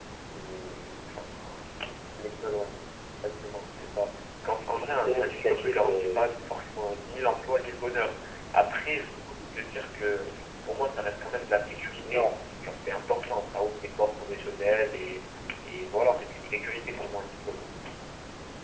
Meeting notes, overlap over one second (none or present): present